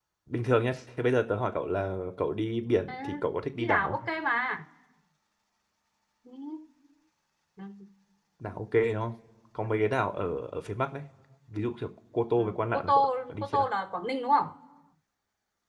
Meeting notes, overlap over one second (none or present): present